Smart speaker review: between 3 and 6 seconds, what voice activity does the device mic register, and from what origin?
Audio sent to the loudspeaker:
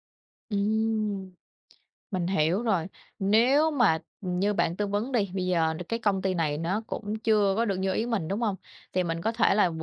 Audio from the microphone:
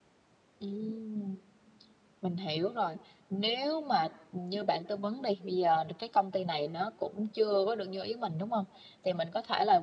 echo only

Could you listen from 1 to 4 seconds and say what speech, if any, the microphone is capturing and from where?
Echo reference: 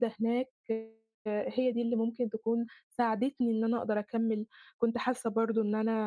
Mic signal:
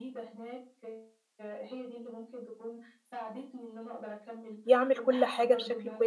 echo only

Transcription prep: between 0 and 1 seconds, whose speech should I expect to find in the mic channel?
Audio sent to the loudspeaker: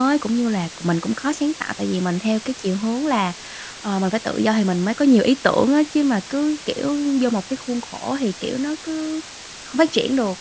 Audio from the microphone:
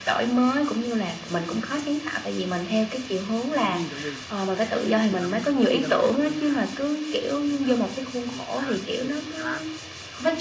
echo only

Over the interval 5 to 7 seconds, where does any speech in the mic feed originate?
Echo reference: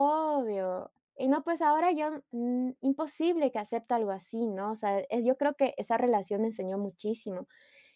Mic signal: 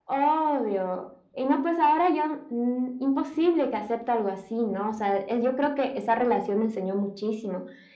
echo only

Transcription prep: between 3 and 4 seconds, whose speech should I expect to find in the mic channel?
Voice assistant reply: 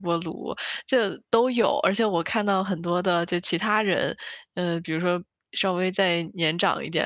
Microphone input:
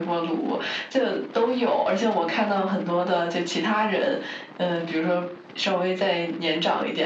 echo only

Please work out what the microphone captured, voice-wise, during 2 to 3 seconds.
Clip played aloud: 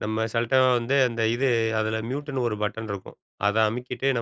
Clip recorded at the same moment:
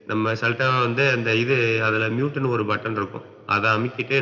echo only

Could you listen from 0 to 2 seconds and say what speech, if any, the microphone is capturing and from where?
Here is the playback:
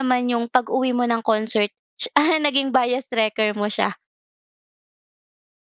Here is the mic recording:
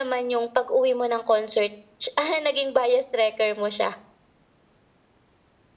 echo only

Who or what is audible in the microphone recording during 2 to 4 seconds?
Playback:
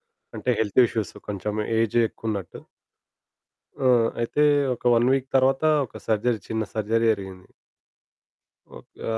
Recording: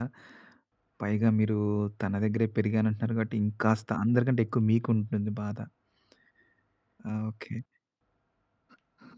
user only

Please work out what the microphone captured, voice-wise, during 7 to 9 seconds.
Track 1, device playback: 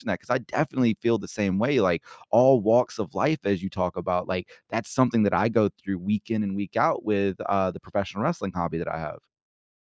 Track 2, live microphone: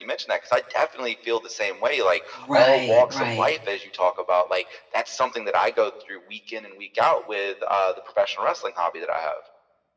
echo only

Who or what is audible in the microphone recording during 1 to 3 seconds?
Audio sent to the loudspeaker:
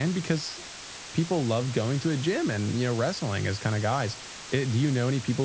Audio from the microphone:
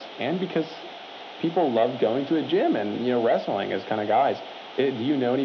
echo only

